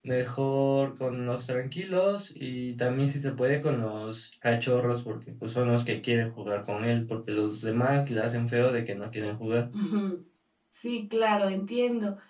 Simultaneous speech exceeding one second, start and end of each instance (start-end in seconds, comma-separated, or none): none